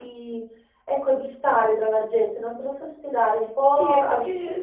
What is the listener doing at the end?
taking over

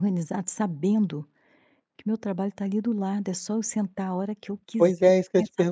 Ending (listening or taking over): taking over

